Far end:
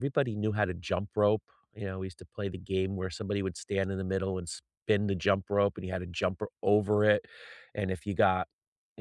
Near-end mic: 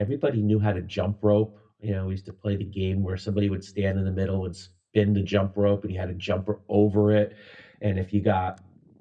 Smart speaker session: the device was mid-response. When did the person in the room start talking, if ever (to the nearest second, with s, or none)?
none